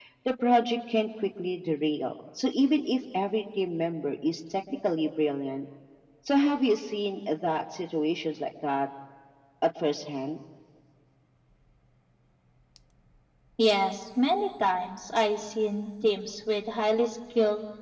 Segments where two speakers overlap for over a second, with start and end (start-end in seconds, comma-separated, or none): none